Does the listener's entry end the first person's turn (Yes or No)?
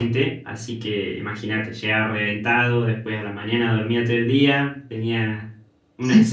No